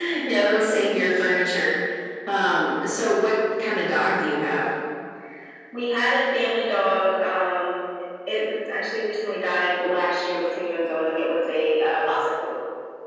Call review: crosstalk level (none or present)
none